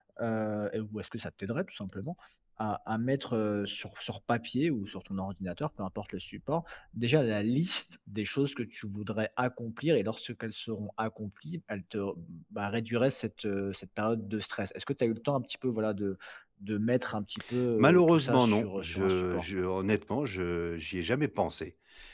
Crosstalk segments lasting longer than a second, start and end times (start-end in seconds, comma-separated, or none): 17.8-19.4